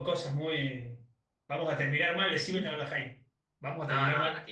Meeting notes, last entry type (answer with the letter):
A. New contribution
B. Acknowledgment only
A